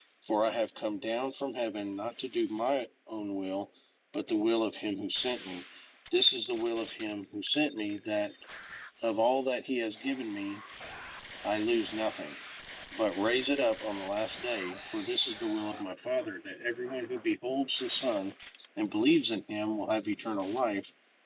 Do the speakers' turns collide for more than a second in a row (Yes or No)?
No